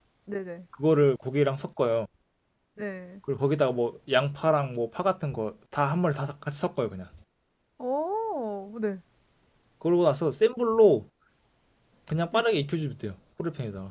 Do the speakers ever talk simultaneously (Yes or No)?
No